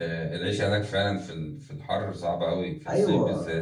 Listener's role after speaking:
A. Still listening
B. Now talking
B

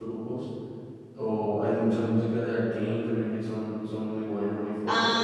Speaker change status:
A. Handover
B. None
A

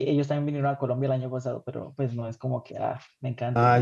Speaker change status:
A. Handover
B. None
A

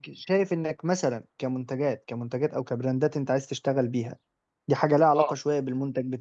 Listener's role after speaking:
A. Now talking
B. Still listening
B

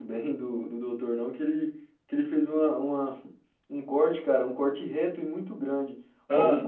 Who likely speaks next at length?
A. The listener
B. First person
B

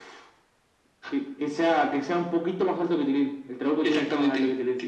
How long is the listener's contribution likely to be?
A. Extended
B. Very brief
A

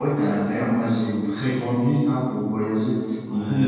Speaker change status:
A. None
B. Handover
B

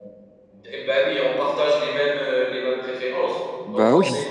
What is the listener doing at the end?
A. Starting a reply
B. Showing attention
B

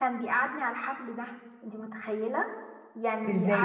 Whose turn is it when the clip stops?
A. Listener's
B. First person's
B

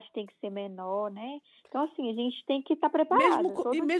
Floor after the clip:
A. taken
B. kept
A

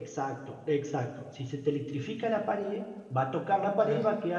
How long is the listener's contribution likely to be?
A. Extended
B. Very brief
B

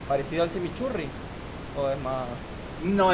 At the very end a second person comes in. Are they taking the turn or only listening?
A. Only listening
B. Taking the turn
B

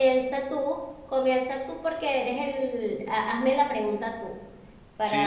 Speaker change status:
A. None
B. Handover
B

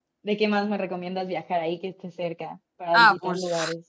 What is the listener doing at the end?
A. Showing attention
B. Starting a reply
B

